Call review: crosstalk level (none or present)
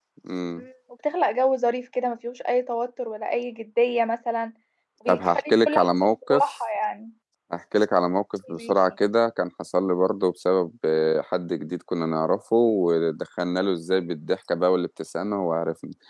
present